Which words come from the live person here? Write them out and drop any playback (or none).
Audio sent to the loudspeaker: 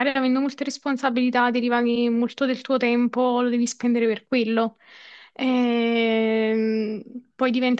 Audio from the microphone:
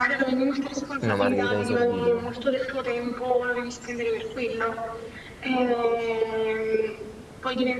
Una margherita di Sorbillo.